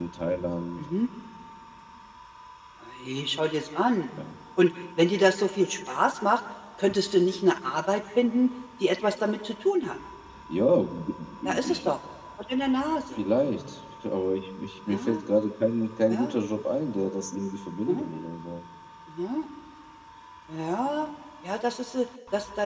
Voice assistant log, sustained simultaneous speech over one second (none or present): none